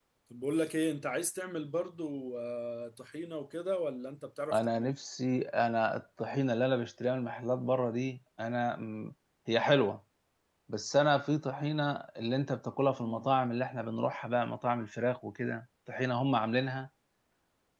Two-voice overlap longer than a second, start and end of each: none

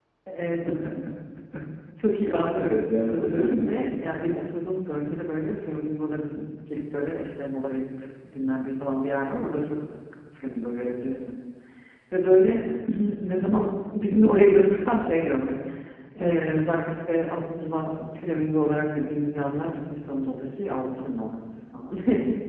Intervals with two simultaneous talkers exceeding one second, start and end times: 2.6-4.1

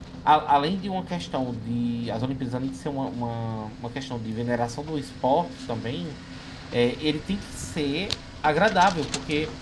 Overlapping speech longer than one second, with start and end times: none

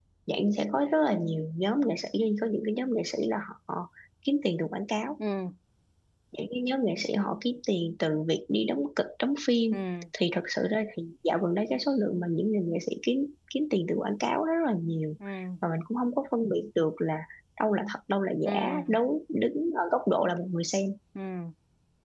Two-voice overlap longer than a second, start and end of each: none

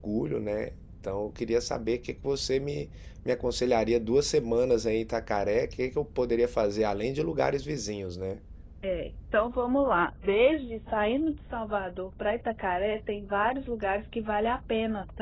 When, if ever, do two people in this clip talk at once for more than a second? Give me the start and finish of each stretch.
none

